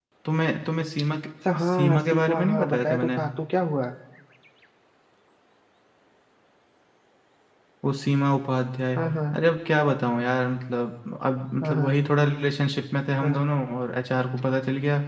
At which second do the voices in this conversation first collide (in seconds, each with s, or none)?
1.6 s